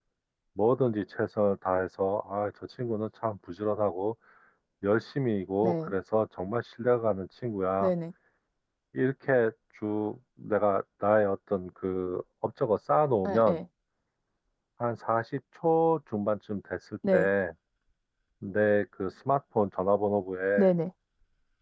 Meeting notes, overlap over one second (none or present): none